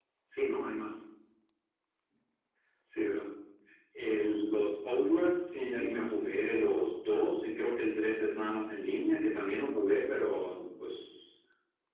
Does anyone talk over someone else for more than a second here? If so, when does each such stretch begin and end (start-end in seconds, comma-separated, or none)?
5.4-6.8